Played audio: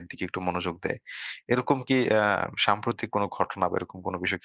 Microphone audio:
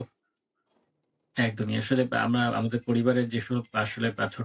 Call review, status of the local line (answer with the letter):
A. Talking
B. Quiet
A